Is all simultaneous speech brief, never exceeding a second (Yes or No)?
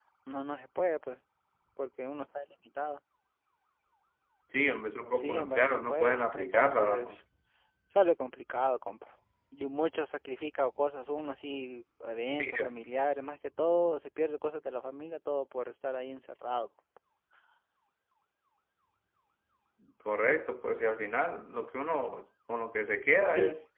No